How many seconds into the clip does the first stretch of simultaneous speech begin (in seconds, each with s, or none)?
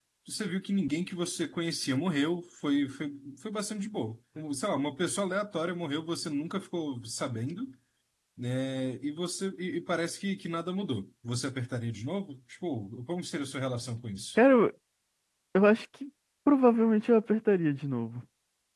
none